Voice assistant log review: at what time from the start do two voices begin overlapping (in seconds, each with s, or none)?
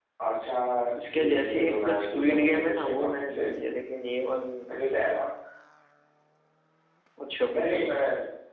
1.1 s